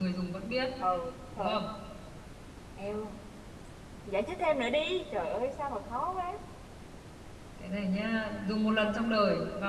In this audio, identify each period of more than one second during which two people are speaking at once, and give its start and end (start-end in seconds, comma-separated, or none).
none